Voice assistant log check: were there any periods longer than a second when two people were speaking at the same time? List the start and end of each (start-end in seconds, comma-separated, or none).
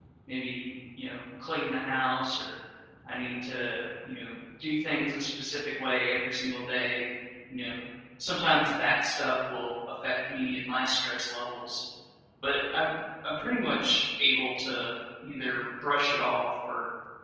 none